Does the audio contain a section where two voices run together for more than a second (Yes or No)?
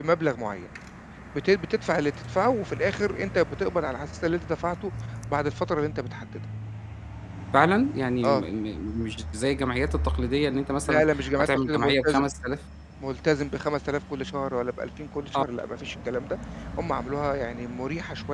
Yes